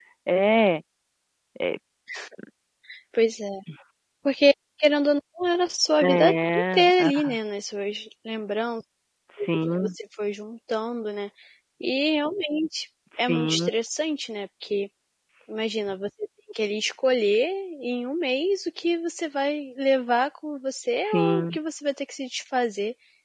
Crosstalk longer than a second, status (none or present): present